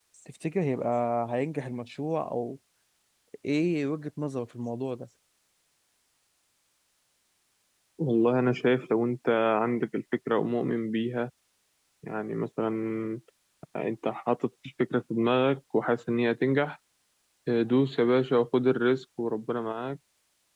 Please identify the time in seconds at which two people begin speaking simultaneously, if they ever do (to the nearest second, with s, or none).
none